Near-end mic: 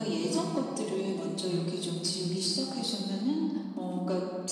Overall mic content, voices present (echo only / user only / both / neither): echo only